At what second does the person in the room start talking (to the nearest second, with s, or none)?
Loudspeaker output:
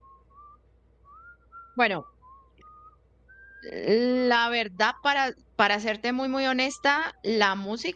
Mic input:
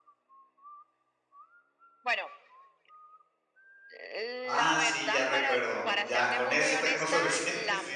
4 s